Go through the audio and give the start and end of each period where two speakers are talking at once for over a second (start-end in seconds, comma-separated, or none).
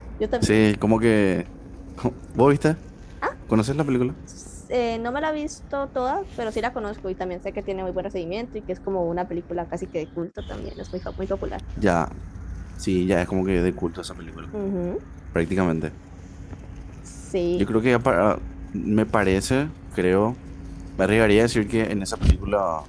none